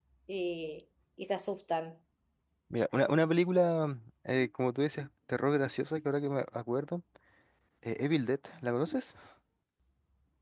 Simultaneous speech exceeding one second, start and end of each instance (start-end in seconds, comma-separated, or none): none